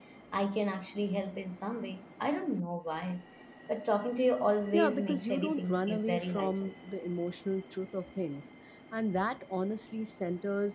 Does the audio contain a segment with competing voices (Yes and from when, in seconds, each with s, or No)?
Yes, from 4.7 s